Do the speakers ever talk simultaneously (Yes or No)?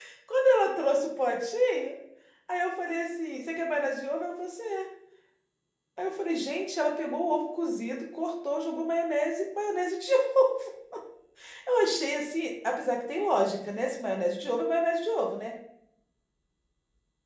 No